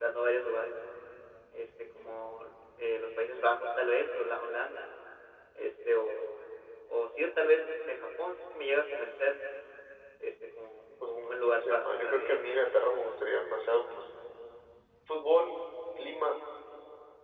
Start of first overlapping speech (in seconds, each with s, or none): 11.1 s